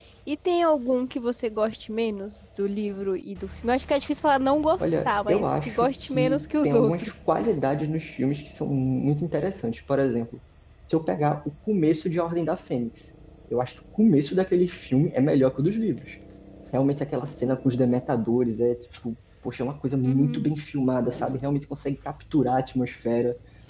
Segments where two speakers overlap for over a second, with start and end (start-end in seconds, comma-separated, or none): 4.8-7.1